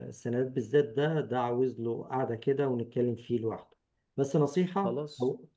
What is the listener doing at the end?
listening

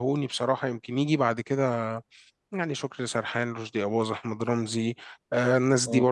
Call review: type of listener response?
listening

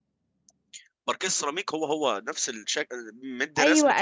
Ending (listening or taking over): taking over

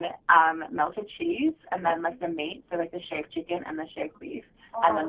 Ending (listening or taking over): listening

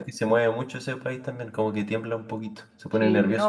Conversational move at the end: taking over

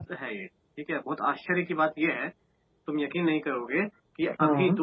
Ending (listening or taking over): listening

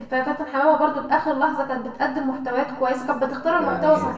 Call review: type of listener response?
taking over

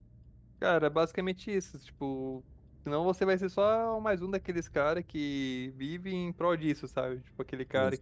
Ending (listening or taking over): listening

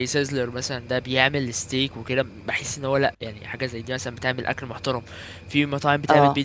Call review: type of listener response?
listening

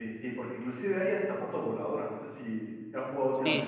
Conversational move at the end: taking over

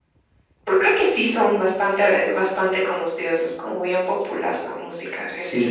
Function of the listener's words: taking over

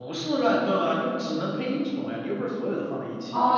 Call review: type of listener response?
taking over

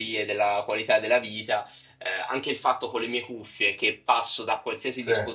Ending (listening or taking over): listening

